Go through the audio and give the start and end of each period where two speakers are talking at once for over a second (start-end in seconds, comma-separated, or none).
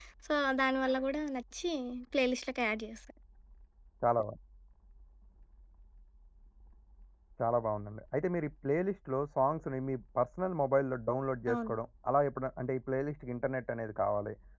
none